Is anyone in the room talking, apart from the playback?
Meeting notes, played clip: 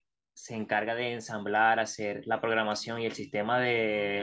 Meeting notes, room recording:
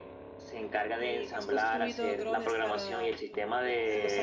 Yes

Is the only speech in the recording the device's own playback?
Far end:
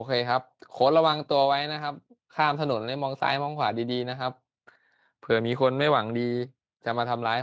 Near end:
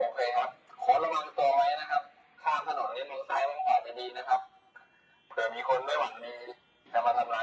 Yes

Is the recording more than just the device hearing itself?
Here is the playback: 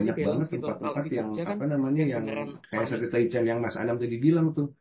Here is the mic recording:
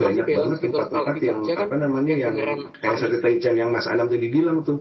No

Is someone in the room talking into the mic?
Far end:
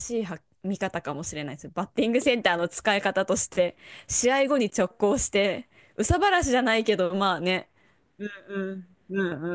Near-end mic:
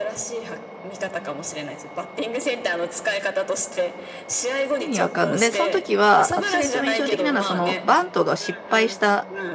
Yes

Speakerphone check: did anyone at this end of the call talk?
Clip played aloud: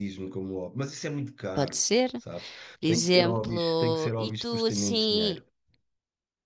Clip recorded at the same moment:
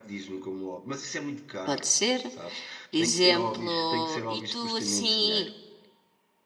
No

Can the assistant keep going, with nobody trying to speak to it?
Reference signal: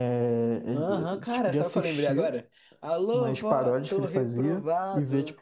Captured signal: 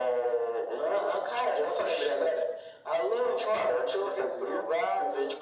Yes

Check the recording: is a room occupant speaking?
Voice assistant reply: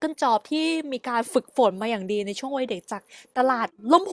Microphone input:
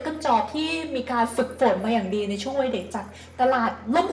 No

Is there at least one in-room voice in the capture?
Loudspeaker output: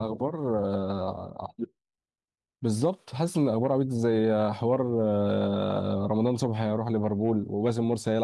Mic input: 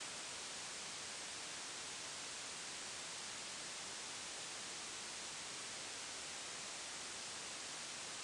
No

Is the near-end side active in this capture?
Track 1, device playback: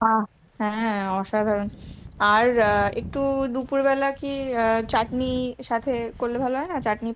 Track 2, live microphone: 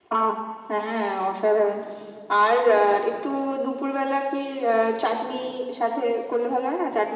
No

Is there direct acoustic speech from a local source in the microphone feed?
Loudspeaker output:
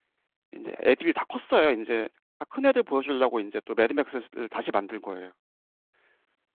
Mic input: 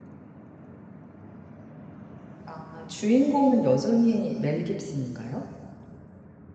Yes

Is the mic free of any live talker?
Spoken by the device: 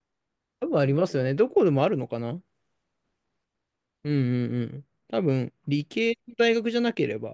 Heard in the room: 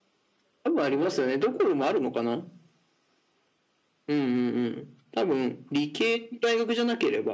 Yes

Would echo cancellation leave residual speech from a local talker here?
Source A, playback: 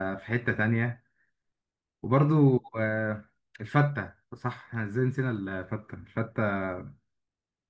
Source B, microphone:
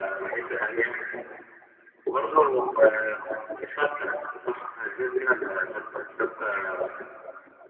No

